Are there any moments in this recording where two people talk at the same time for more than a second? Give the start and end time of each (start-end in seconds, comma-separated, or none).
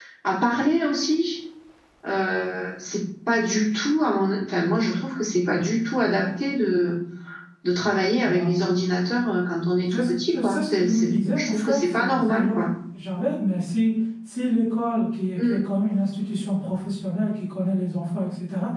9.9-12.5